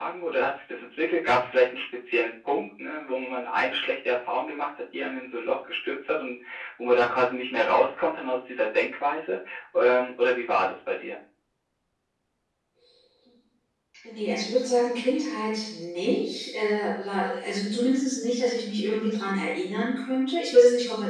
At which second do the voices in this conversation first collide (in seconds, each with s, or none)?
none